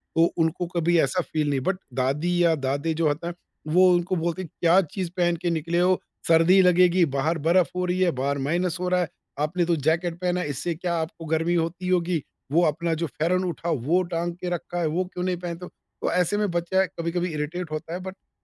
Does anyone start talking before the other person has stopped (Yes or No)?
No